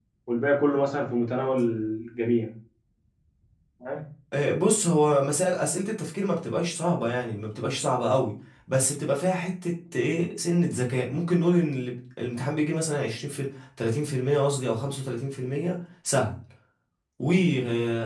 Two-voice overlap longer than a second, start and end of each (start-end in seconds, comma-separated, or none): none